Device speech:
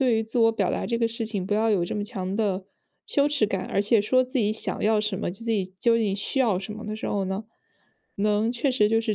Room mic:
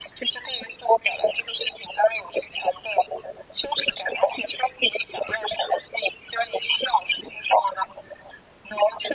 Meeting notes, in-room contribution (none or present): none